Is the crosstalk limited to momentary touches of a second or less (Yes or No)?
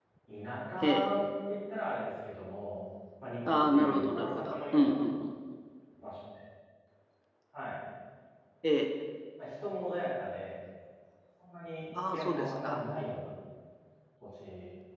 No